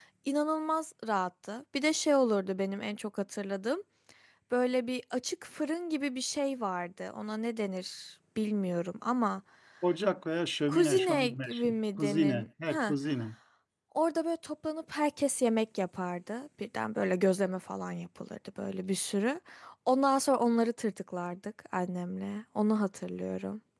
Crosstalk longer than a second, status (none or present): present